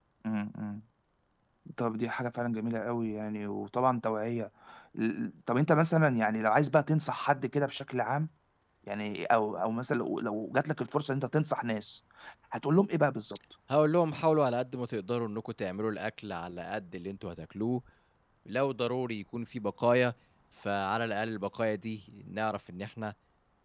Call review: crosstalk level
none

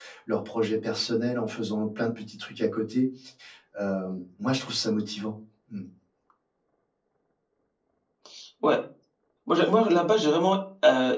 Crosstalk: none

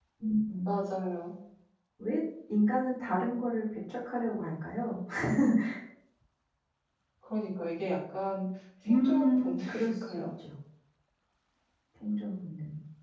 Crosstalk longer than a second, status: present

